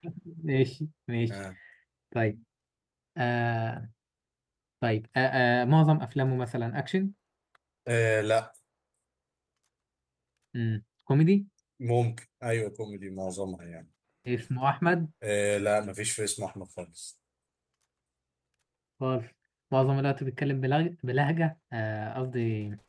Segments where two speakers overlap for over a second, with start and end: none

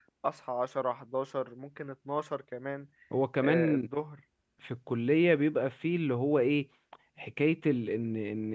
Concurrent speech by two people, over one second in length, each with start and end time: none

